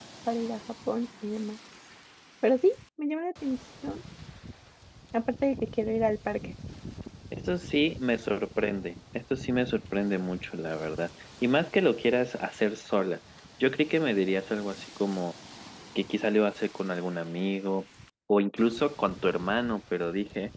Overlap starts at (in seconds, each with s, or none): none